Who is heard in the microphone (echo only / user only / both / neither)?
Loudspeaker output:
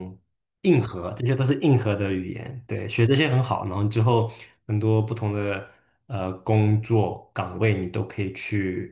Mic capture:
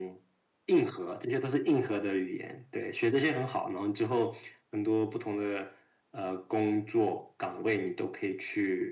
echo only